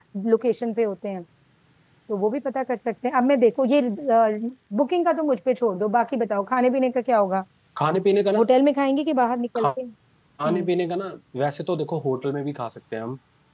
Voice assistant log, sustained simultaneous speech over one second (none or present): none